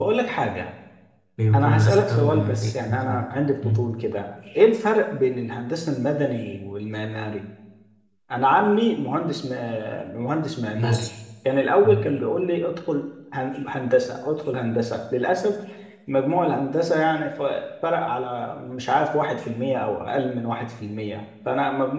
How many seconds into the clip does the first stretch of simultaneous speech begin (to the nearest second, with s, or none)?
2 s